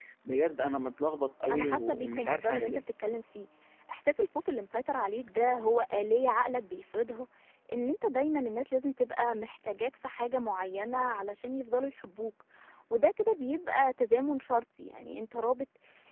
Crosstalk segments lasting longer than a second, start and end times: 1.5-2.8

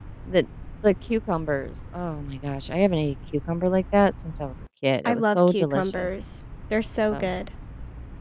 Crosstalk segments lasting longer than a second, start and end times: 5.0-6.3

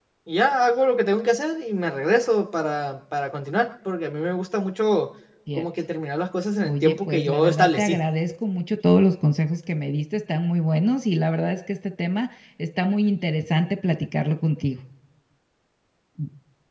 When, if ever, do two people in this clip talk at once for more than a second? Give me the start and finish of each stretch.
6.6-8.0

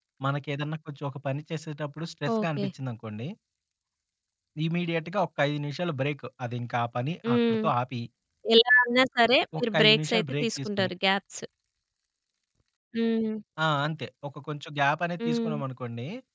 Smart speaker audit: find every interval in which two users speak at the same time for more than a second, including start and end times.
9.6-10.9

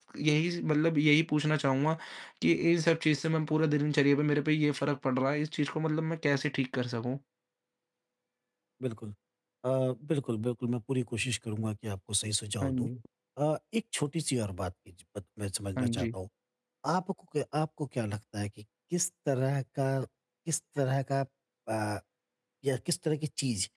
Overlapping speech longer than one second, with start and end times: none

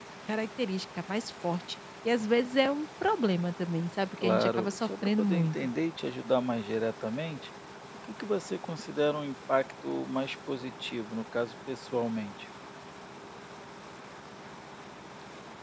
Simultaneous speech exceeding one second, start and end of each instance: 4.2-5.6

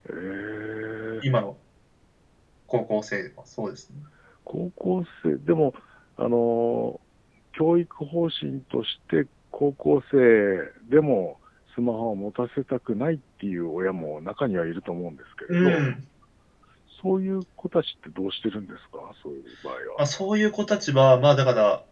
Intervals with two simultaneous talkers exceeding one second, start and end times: none

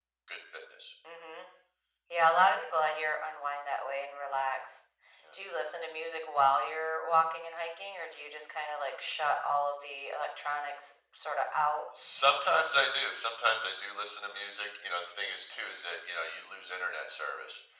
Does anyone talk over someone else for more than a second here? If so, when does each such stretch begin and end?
none

